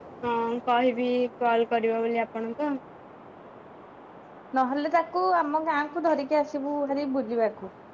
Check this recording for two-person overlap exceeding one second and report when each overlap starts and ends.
none

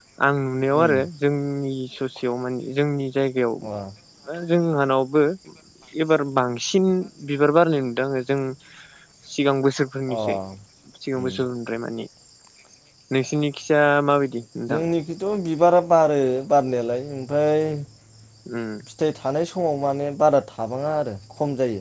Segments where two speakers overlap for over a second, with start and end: none

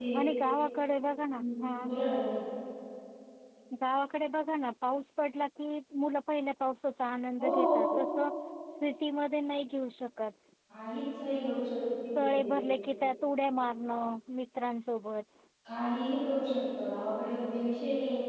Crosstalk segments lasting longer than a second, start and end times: none

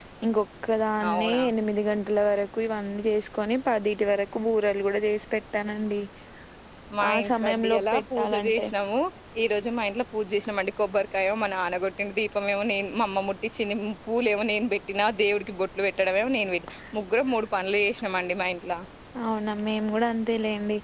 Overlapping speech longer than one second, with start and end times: 7.1-8.7

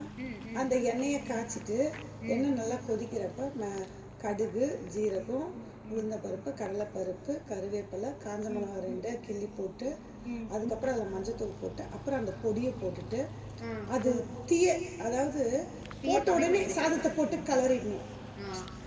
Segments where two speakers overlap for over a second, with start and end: 16.1-17.4

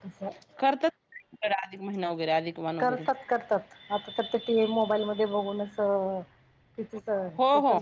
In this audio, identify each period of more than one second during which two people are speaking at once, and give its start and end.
none

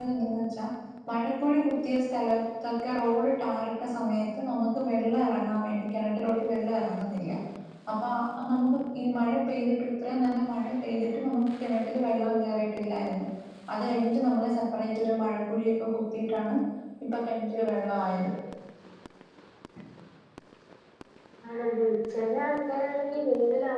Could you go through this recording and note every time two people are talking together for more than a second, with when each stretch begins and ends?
none

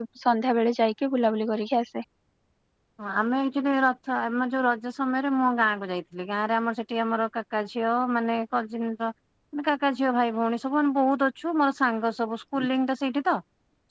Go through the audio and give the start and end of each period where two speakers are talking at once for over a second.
none

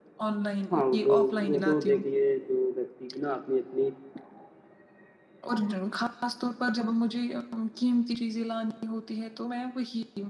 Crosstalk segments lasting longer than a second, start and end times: 0.7-2.0

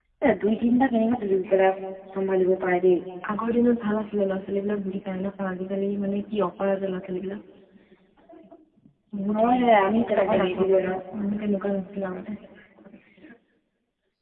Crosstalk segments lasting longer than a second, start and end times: 9.4-10.9

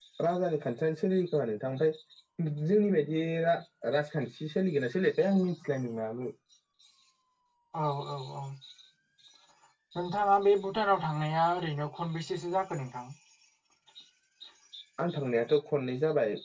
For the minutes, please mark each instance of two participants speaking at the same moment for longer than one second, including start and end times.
none

